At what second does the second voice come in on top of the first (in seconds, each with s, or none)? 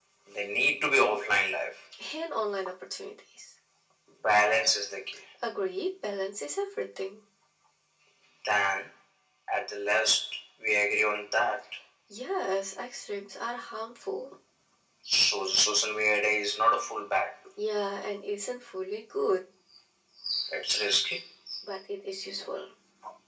none